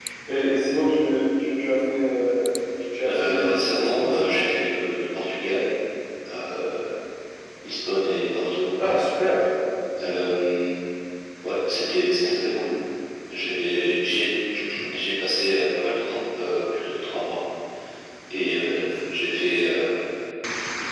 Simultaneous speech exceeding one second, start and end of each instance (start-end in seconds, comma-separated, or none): 3.1-4.5